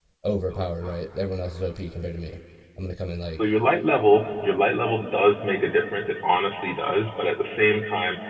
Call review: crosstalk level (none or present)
none